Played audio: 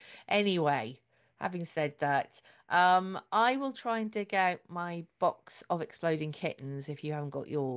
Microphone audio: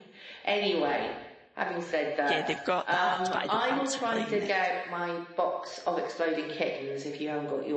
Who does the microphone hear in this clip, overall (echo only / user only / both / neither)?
both